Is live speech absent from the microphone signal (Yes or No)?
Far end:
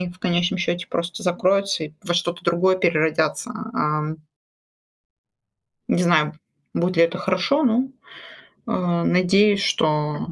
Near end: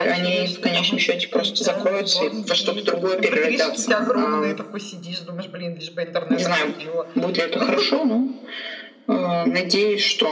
No